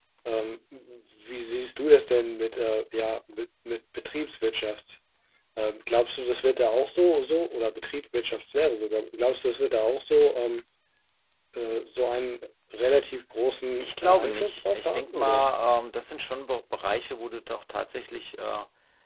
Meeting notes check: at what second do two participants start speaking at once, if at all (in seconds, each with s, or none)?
13.8 s